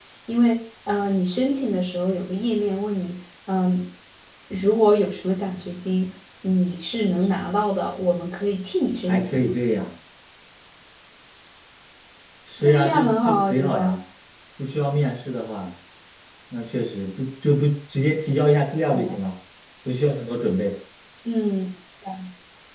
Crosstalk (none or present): present